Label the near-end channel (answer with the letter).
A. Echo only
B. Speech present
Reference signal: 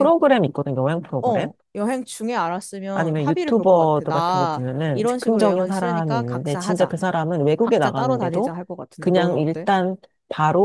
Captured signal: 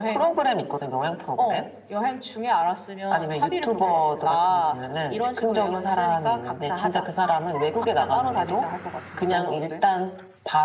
A